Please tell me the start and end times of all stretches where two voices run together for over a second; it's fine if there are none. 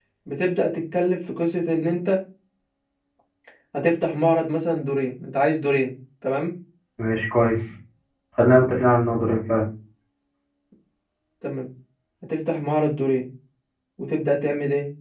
none

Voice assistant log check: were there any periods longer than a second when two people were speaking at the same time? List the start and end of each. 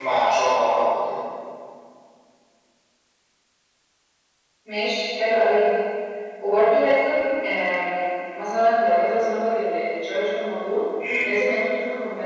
none

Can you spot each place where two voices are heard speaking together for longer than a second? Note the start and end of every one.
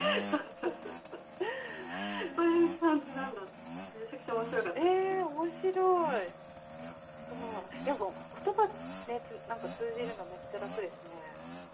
none

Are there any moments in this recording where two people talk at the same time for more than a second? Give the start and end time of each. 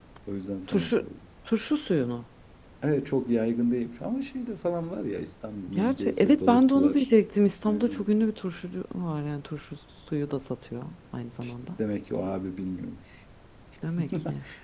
5.7-7.1

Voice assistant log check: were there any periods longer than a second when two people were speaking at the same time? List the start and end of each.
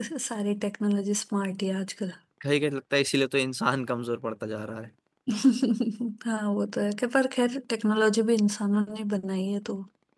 none

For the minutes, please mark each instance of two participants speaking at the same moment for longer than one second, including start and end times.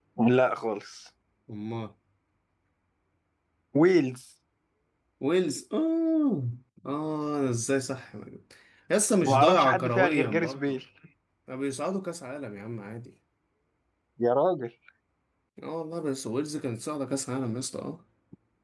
9.2-10.8

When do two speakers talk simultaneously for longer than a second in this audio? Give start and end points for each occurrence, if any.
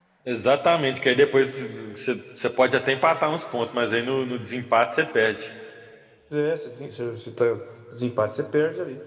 none

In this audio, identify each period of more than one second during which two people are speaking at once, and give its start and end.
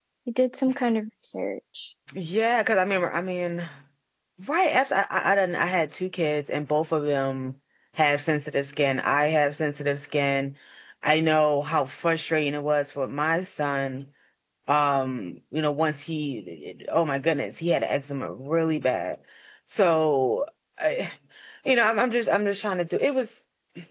none

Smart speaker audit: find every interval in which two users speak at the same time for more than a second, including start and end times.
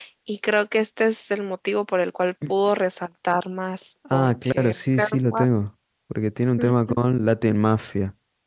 4.1-5.5

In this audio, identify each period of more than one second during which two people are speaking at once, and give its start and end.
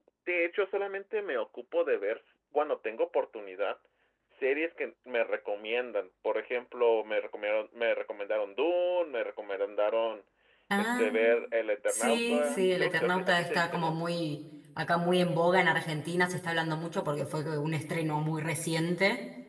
11.9-14.0

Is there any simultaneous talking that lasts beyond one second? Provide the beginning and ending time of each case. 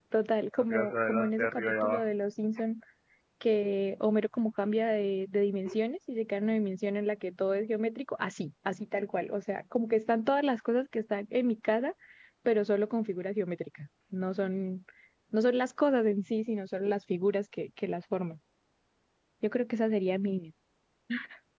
0.7-2.0

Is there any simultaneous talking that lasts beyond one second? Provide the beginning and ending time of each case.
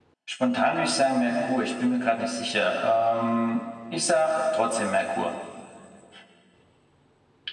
none

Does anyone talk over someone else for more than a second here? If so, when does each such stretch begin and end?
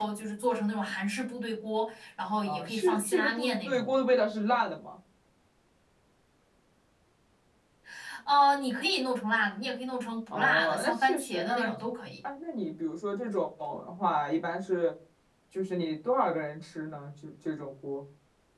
2.5-3.9, 10.3-11.7

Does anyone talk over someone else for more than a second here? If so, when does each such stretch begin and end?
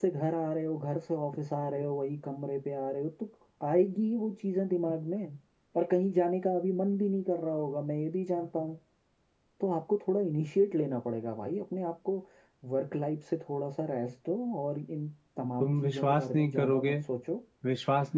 15.6-16.9

